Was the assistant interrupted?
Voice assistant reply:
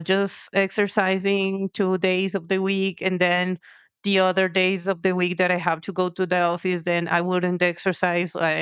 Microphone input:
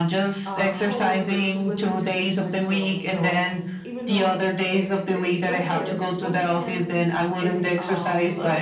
Yes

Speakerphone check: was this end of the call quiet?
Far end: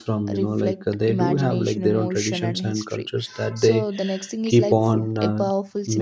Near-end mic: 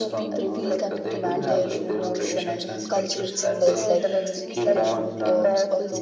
No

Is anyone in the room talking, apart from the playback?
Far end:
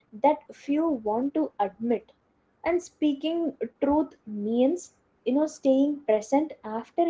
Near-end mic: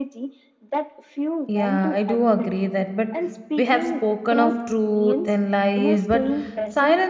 Yes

